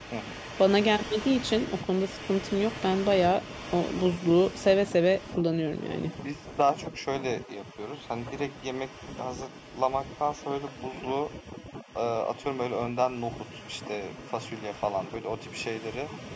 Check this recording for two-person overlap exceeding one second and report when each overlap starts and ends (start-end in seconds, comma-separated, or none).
none